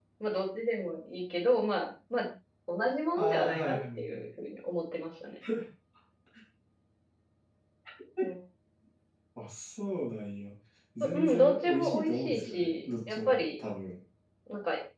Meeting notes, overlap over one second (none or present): present